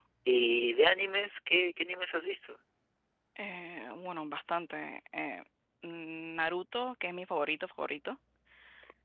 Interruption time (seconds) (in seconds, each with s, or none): none